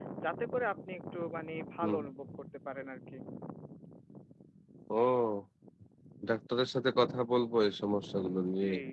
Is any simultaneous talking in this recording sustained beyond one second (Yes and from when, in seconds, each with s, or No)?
No